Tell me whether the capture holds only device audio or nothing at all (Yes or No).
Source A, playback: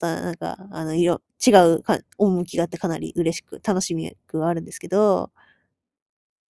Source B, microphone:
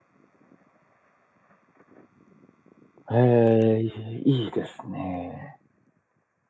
No